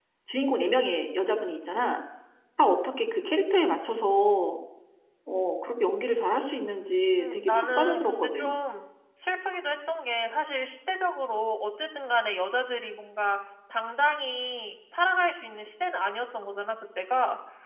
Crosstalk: present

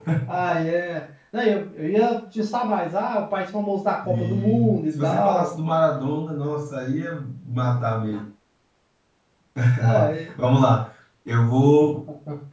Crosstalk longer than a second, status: present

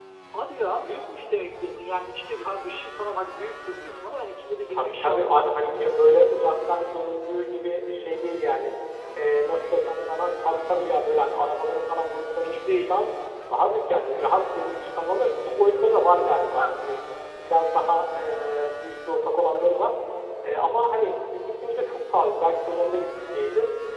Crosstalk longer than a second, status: present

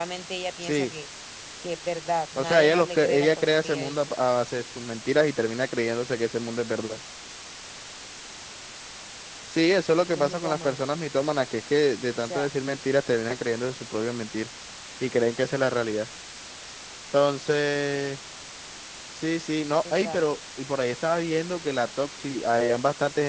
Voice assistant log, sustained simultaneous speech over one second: present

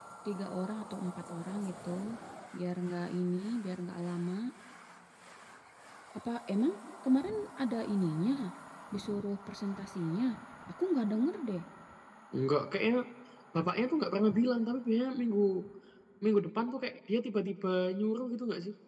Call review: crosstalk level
none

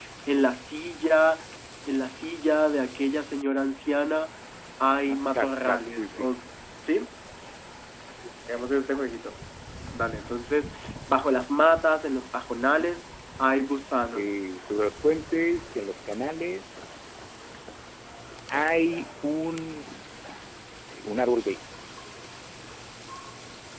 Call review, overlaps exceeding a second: present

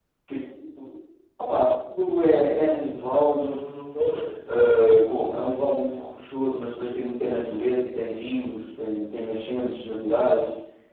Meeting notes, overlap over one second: none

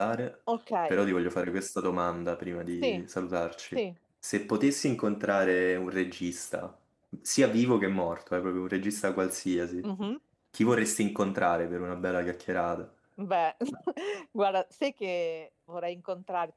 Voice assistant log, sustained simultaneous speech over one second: none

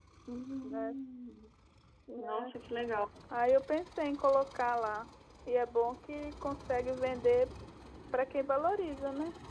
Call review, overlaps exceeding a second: none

